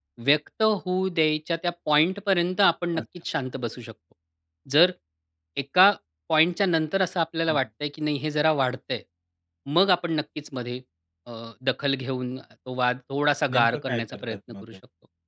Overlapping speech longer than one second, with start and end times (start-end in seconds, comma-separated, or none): 13.5-14.8